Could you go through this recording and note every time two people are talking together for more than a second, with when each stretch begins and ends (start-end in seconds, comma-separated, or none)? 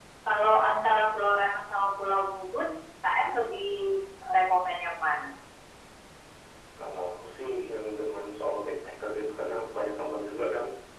none